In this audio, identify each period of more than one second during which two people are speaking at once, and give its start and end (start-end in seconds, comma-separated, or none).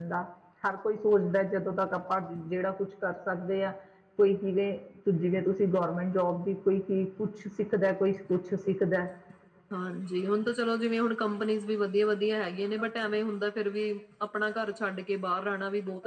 none